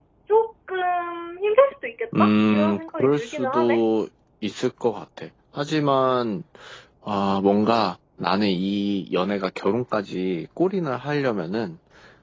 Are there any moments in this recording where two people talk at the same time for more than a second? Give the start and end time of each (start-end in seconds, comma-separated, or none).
2.2-3.8